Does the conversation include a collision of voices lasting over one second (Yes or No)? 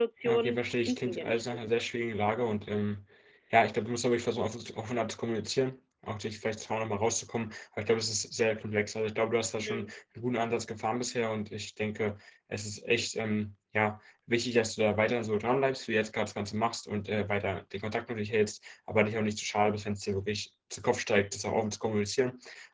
Yes